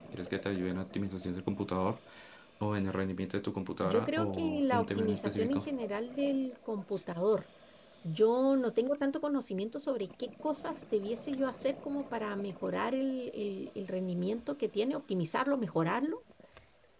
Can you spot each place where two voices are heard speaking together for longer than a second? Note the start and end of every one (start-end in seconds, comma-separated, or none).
3.8-5.7